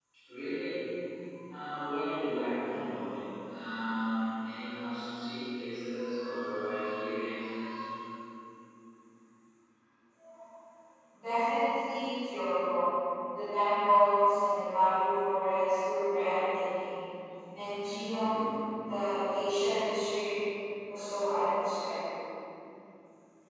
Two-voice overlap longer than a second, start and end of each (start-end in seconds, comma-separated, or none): none